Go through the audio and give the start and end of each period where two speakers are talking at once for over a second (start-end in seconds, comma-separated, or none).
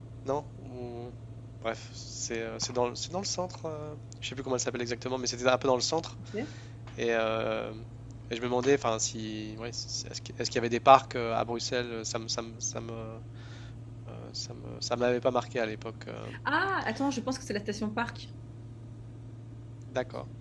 none